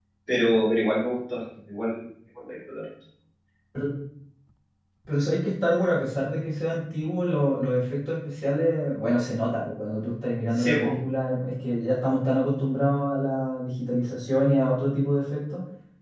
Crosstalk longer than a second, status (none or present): none